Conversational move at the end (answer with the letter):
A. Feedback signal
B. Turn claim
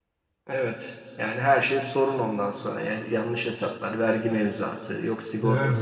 B